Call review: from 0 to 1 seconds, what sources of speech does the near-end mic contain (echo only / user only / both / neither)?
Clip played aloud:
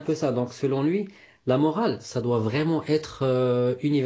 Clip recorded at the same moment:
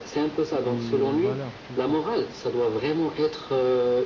both